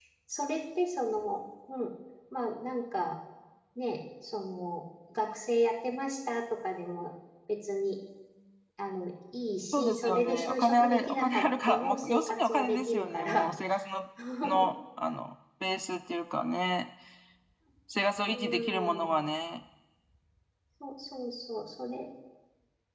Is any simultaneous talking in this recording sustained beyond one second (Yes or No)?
Yes